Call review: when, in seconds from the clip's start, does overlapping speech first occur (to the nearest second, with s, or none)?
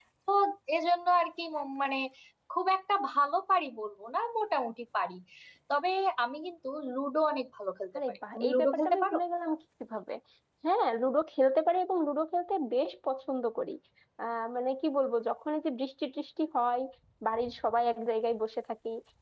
8 s